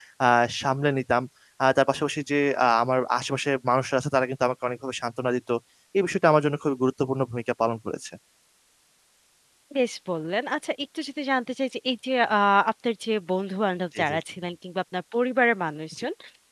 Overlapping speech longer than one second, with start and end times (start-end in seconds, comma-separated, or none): none